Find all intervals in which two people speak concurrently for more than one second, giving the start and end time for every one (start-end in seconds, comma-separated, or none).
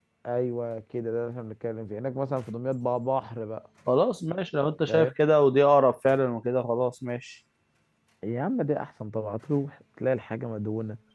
none